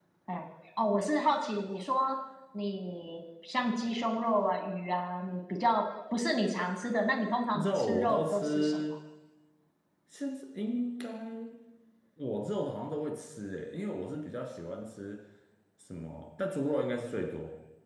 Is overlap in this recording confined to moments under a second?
No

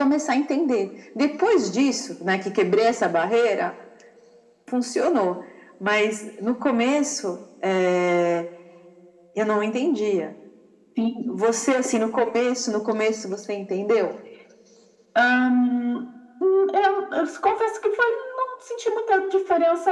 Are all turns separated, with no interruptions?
Yes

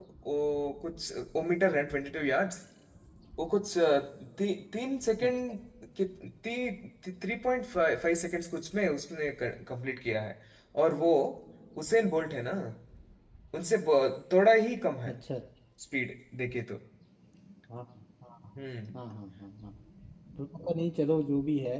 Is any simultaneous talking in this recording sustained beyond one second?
No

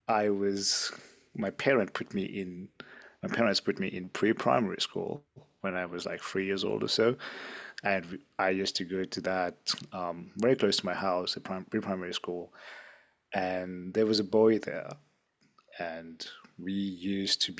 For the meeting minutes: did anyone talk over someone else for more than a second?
No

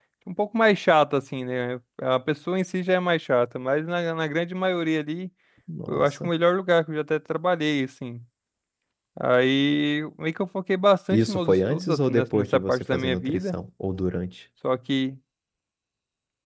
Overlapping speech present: Yes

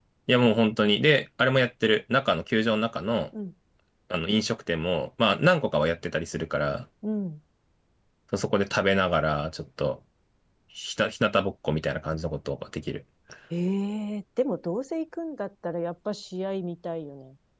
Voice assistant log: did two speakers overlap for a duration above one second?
No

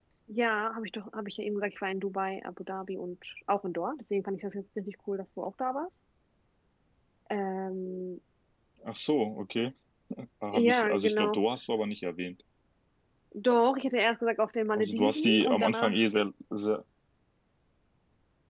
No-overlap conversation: No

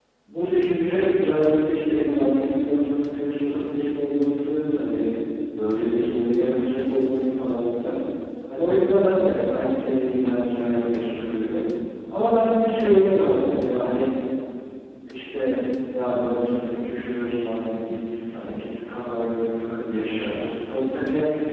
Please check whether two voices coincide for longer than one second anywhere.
No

